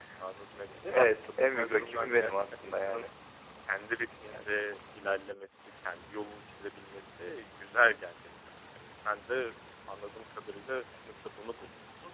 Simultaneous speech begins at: 0.8 s

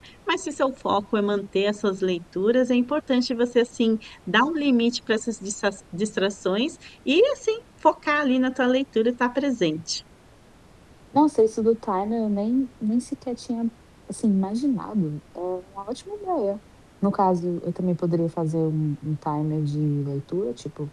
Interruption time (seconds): none

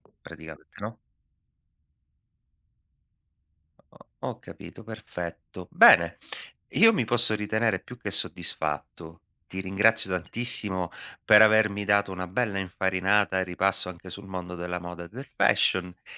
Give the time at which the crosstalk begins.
none

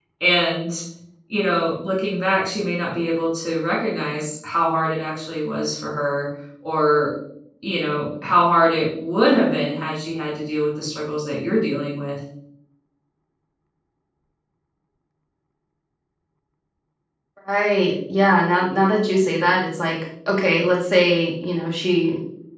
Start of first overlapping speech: none

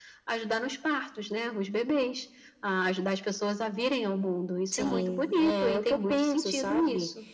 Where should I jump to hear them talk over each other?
4.7 s

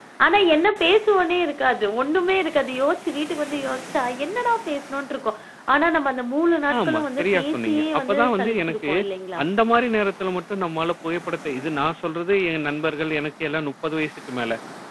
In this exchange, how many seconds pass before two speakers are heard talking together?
6.7 s

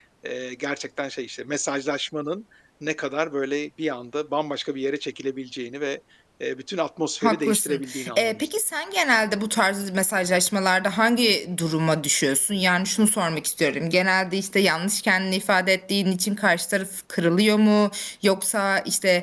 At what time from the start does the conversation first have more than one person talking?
7.2 s

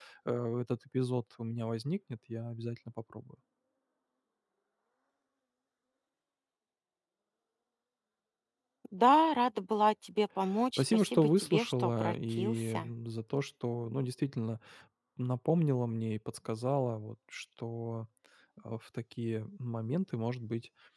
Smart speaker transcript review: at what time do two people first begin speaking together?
10.8 s

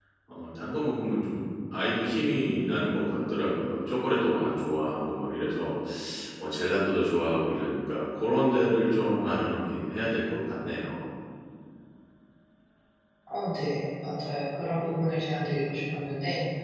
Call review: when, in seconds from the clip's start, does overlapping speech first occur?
none

